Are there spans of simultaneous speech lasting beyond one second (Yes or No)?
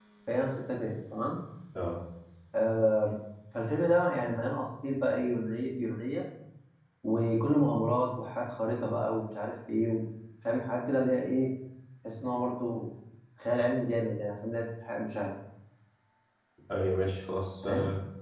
No